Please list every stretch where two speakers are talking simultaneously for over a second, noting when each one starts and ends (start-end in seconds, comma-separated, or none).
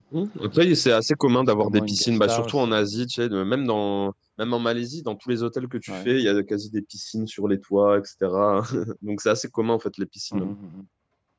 1.4-2.7